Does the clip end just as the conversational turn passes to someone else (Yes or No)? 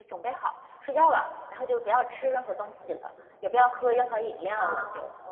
Yes